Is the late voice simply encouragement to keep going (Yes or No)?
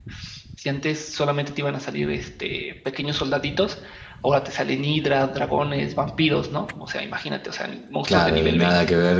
No